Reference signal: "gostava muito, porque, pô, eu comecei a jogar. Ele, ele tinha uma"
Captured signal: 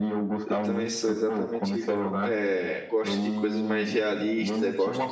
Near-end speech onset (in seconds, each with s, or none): 0.4 s